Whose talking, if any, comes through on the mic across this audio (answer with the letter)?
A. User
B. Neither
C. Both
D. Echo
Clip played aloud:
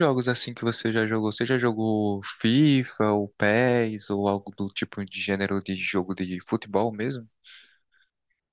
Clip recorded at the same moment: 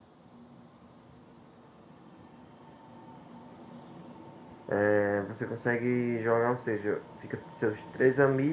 A